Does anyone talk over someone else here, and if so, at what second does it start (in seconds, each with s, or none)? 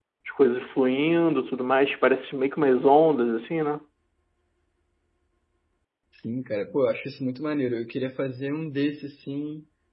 none